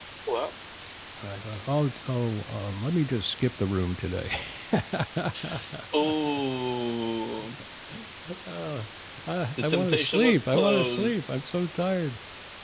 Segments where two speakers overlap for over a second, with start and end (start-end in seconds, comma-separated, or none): 9.6-11.3